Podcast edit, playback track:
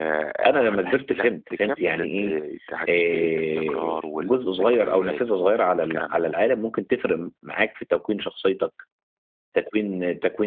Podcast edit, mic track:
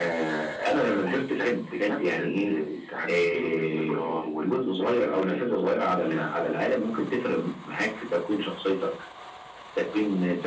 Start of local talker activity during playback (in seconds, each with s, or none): none